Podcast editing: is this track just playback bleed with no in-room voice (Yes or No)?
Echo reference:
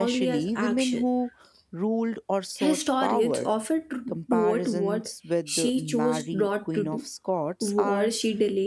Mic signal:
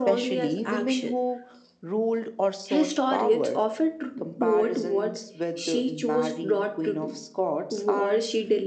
Yes